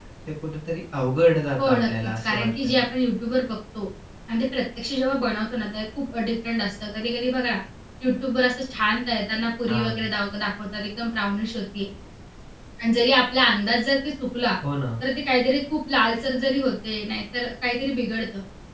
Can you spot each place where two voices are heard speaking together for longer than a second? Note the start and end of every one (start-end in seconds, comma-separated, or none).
1.6-2.8